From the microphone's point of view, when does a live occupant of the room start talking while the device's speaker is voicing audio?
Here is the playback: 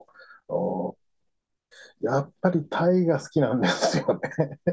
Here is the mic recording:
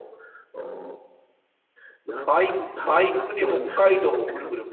2.2 s

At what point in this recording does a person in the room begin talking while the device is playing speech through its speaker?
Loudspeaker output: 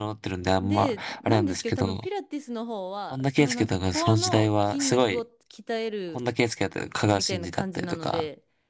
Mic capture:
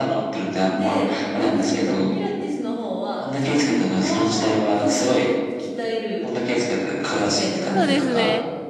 7.7 s

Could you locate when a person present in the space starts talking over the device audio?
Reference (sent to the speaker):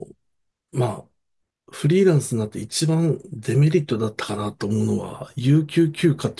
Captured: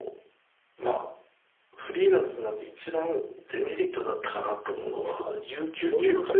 5.0 s

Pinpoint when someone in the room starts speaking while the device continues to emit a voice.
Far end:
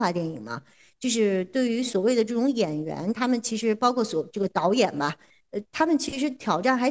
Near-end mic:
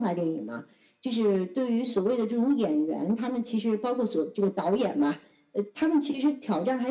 none

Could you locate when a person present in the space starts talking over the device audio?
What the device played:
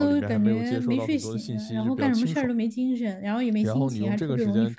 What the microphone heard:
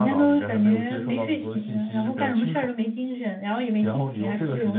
none

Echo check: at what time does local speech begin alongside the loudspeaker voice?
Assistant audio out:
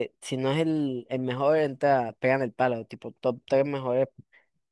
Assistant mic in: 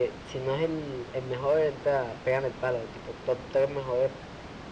none

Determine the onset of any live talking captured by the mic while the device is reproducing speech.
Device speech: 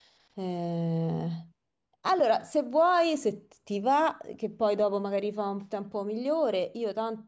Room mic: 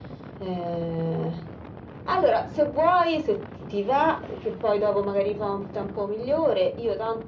none

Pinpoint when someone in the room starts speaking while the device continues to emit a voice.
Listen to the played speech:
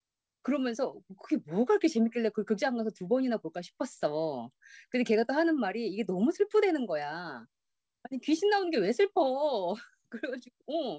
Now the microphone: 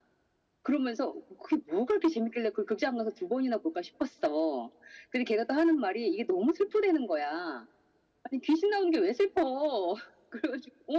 none

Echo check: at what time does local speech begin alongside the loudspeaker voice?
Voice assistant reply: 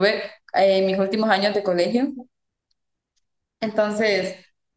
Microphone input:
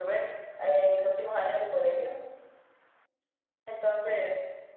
none

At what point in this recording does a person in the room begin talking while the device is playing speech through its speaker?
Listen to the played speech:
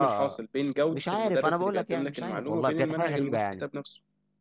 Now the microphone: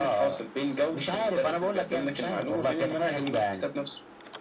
none

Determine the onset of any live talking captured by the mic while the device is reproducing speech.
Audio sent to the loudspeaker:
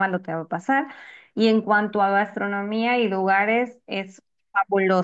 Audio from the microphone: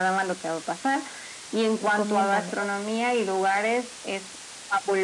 1.8 s

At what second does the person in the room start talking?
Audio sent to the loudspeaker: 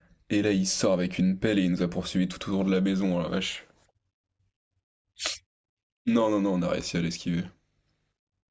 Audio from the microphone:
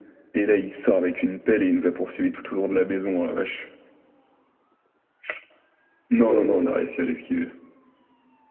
6.3 s

